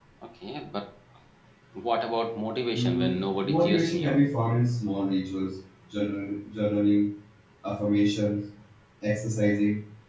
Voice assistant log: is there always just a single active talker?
No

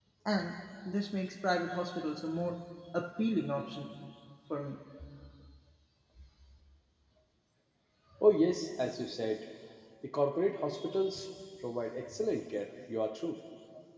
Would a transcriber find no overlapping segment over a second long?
Yes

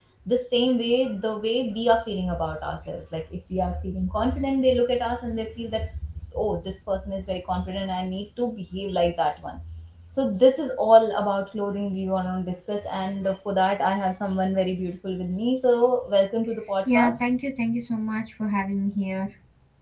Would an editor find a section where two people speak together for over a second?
No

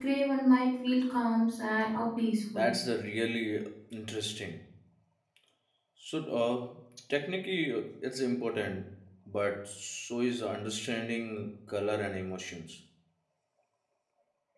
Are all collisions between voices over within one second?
Yes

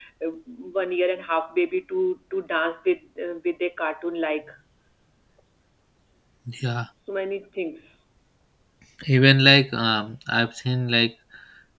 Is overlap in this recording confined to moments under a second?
Yes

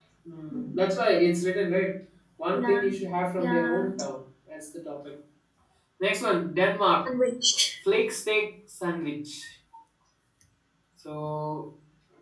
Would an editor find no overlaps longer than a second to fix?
Yes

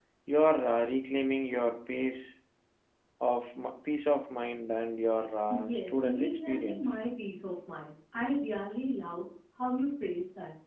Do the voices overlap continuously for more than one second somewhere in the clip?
Yes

